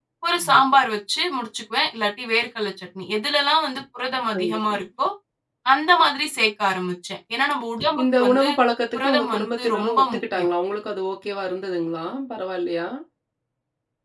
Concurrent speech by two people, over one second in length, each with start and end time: 8.9-10.5

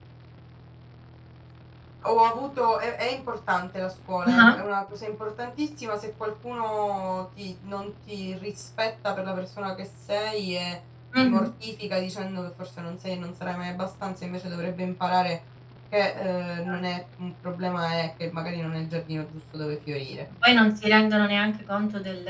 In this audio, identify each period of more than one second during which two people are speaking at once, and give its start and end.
none

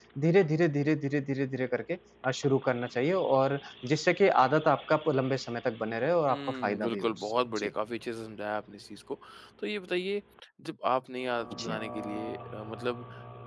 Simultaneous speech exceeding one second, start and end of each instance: 6.3-7.7

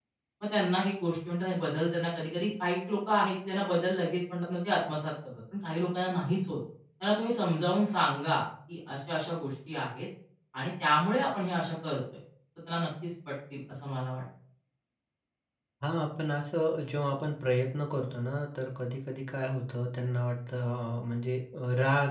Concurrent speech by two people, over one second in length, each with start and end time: none

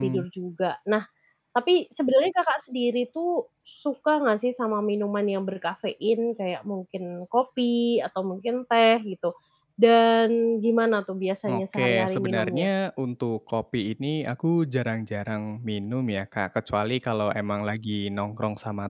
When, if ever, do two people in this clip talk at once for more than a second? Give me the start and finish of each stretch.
11.5-12.7

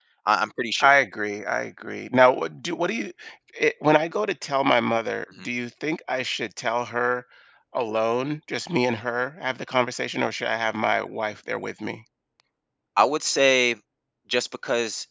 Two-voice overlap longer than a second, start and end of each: none

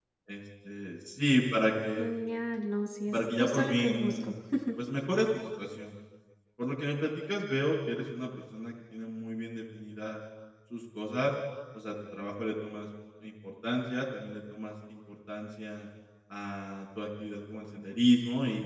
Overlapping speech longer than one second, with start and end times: 3.1-4.3

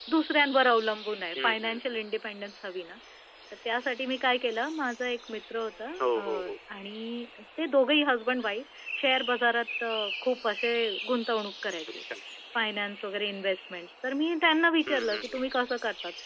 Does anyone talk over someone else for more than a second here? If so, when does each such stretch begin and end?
none

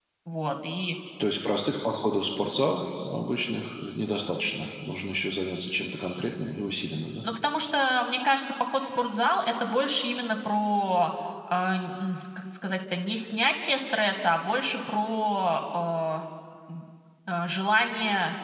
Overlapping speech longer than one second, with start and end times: none

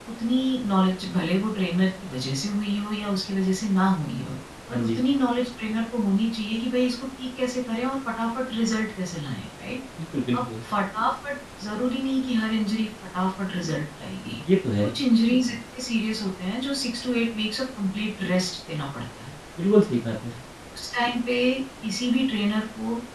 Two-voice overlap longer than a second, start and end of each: none

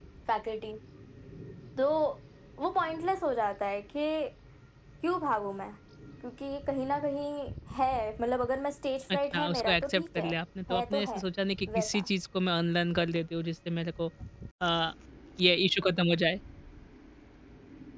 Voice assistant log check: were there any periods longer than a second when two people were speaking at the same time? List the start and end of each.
9.1-10.4

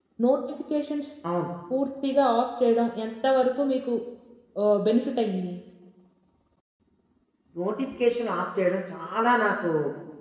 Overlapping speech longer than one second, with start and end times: none

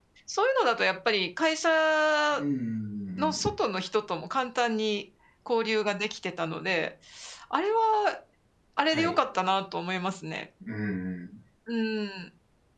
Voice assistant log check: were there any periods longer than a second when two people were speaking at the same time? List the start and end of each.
none

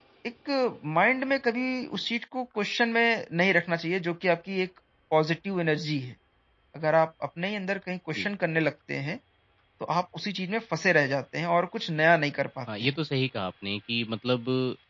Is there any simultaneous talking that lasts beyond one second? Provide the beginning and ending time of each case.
none

